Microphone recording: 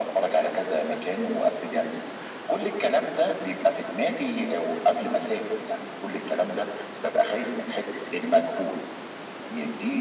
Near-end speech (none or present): none